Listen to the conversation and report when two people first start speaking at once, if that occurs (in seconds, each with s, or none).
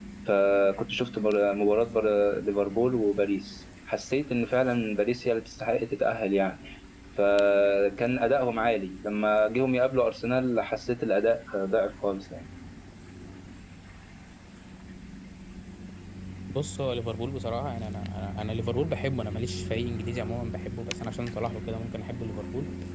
none